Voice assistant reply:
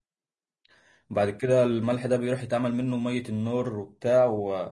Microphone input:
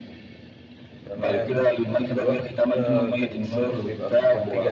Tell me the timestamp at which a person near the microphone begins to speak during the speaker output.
1.0 s

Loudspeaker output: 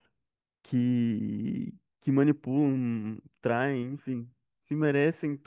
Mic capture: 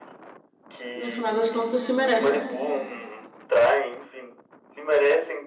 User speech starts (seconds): 0.9 s

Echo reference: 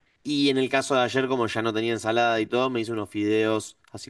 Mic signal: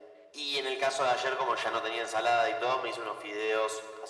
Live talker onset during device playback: none

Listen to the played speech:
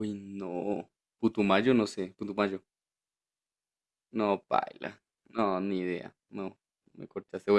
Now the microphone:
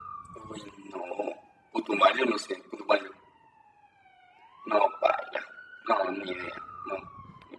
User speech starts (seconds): none

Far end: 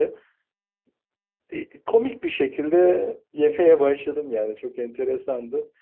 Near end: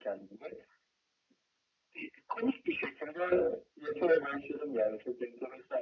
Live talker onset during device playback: none

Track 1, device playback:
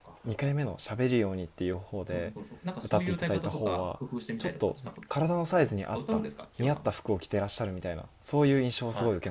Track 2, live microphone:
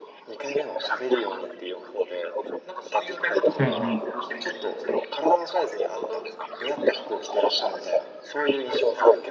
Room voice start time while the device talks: 3.6 s

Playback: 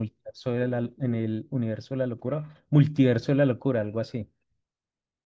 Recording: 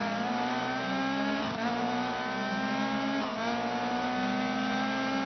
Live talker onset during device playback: none

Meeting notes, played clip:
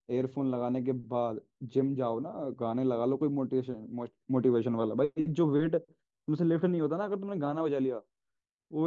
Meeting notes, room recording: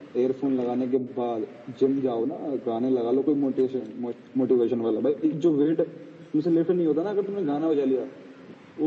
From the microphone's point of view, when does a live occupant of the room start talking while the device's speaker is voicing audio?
none

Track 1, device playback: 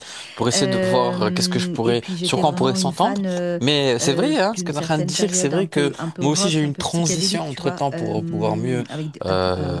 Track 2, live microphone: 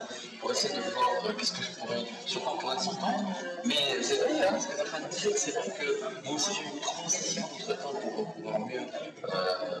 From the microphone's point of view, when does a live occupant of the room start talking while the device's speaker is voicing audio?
none

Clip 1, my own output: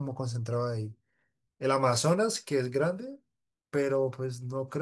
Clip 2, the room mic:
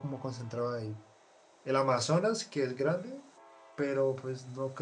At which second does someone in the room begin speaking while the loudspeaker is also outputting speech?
none

